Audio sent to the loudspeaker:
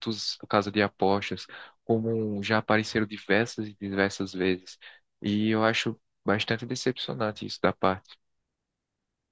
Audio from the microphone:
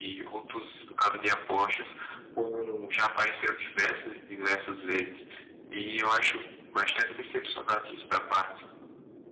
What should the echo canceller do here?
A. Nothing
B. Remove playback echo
B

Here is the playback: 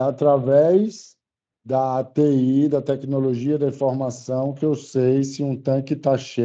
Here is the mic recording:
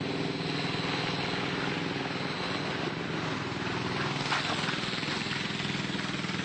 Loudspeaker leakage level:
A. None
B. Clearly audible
A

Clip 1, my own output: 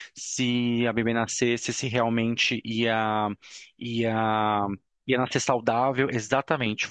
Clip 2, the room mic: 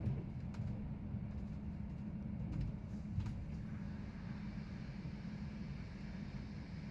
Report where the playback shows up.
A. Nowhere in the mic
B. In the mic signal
A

